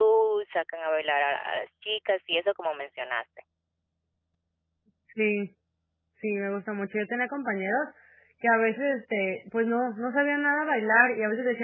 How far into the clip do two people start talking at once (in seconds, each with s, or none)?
none